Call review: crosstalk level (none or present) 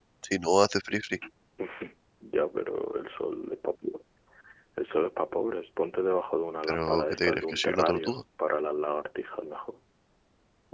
present